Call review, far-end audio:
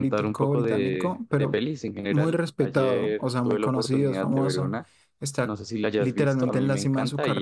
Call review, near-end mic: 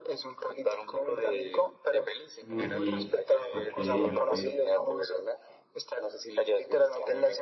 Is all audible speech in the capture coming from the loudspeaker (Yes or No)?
No